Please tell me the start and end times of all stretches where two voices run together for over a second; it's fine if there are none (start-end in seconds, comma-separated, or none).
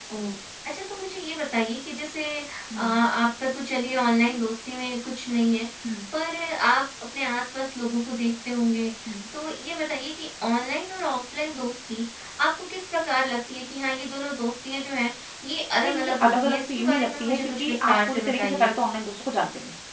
15.8-18.7